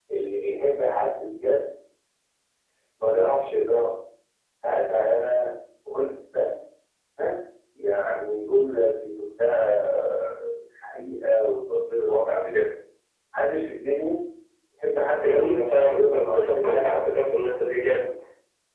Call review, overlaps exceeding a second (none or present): present